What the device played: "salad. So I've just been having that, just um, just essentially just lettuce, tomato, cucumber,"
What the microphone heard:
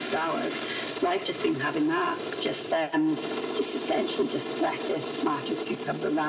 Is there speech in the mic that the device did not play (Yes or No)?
No